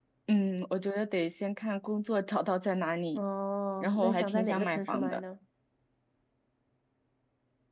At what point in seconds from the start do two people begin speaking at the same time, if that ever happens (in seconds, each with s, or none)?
3.8 s